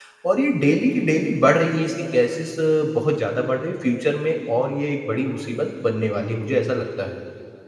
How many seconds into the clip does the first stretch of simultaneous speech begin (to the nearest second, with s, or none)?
none